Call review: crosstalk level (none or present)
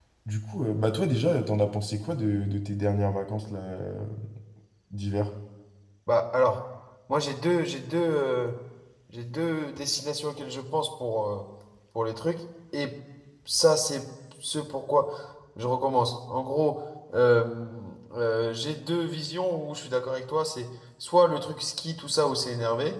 none